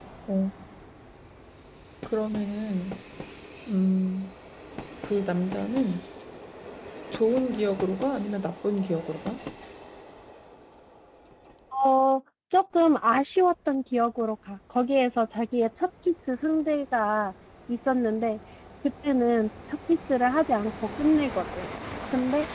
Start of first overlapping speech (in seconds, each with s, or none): none